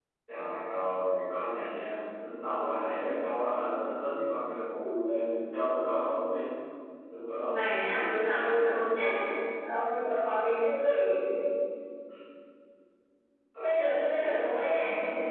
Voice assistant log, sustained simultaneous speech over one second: present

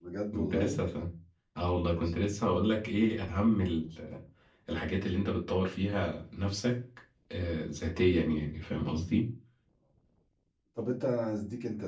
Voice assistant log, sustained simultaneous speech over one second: none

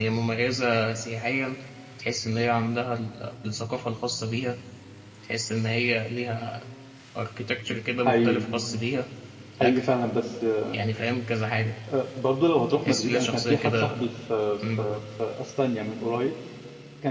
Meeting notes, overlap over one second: present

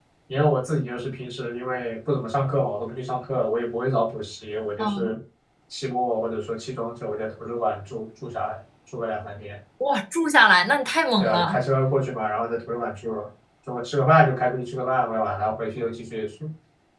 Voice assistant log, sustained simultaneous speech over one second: none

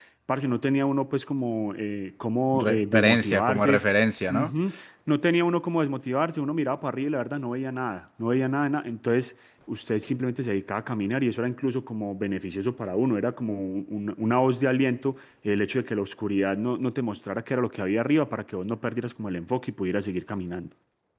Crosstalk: present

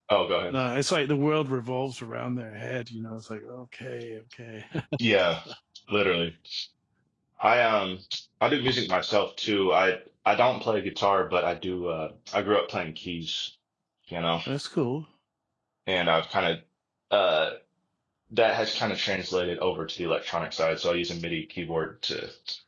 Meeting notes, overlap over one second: none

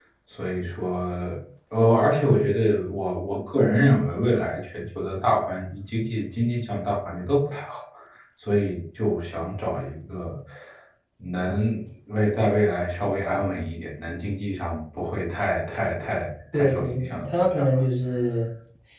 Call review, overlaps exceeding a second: present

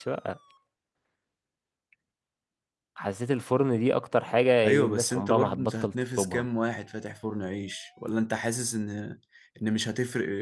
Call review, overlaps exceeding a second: present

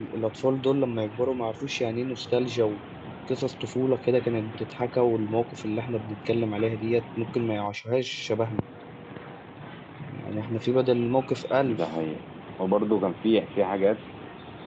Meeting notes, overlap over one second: none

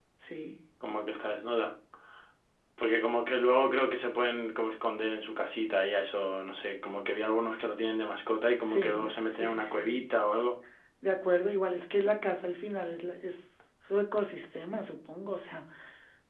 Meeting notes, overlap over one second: present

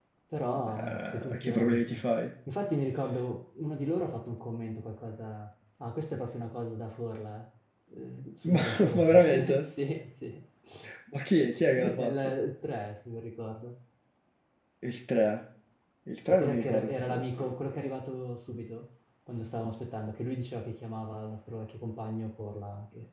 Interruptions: present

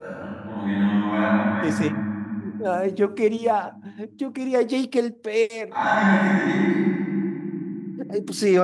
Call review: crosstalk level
none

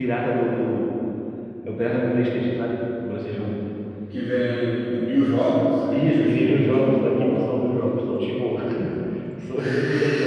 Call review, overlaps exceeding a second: present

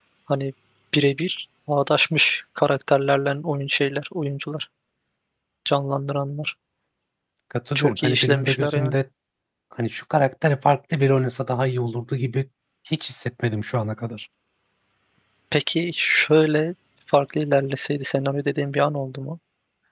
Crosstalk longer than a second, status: present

